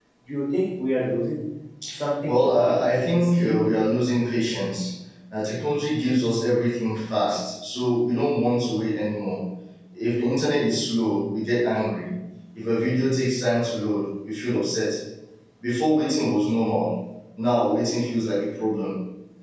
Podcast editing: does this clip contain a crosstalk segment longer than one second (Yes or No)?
Yes